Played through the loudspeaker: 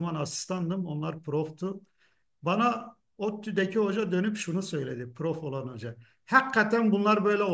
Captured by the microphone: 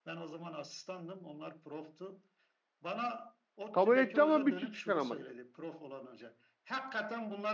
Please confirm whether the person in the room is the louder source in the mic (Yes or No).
Yes